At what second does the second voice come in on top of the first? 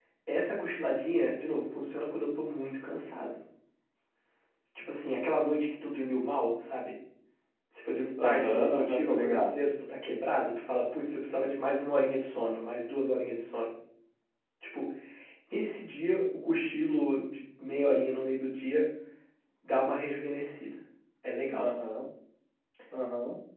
8 s

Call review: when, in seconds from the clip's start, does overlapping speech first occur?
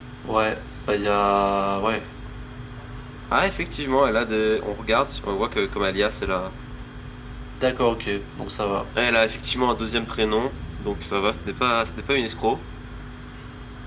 none

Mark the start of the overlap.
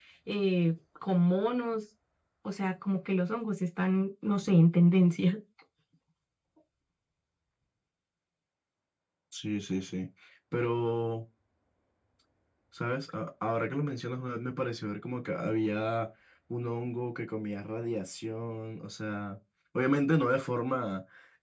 none

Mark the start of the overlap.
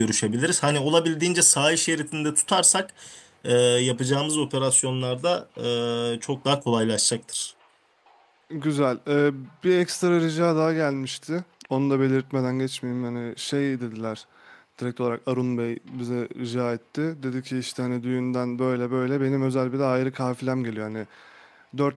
none

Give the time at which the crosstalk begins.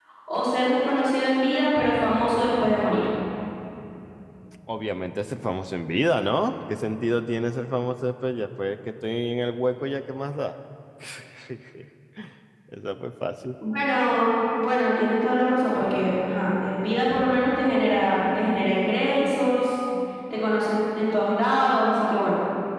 none

